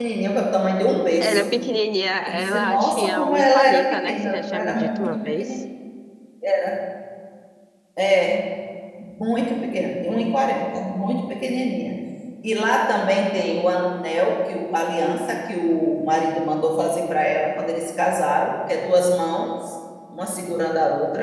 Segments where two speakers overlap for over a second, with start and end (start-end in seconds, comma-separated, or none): 2.3-5.6